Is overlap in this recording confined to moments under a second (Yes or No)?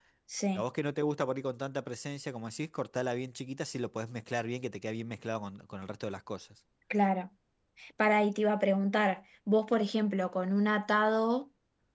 Yes